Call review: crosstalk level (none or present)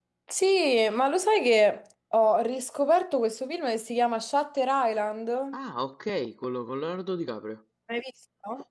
none